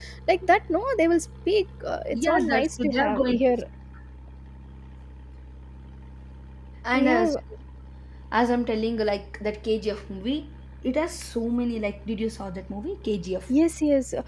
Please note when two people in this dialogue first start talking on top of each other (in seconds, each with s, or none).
2.1 s